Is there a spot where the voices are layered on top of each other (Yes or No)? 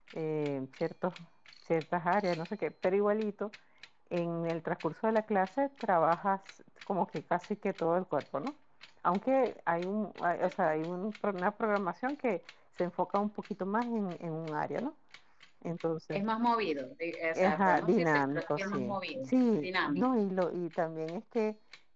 Yes